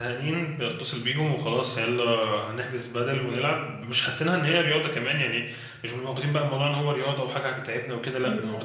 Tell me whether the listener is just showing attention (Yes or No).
No